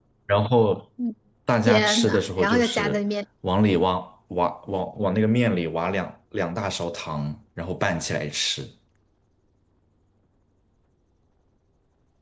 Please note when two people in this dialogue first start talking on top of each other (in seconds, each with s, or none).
1.7 s